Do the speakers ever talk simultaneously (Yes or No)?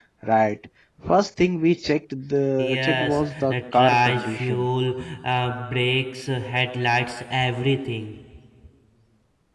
Yes